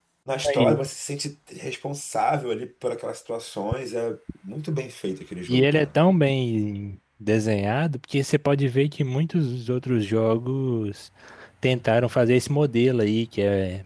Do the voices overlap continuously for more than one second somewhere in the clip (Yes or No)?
No